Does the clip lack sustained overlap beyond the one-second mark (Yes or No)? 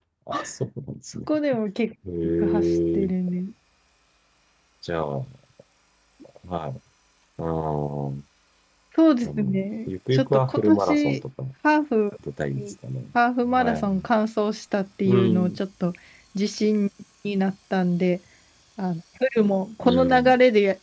No